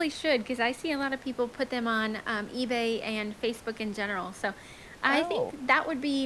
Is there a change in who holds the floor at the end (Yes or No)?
No